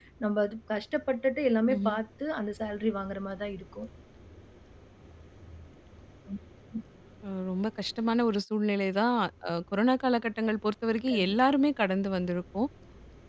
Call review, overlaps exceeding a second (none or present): none